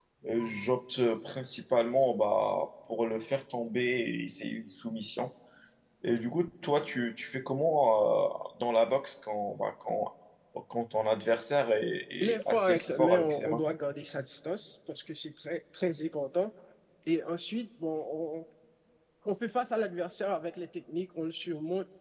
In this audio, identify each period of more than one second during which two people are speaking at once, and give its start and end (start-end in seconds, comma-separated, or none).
12.2-13.6